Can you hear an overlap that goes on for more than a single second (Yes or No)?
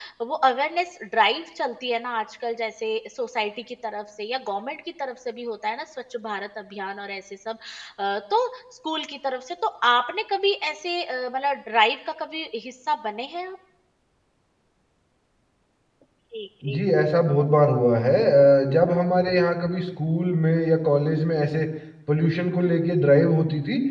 No